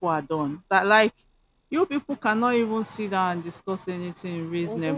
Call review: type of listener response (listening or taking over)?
taking over